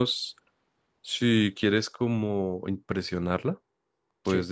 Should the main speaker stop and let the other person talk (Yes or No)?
No